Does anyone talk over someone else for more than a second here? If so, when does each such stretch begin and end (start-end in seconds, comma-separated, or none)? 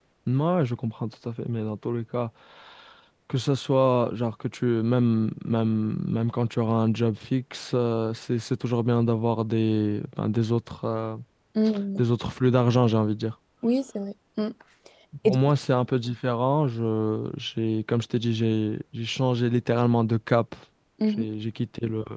none